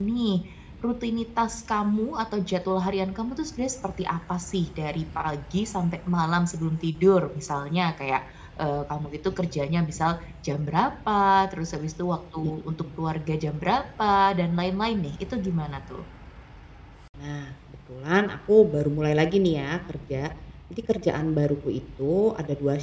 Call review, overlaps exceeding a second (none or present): none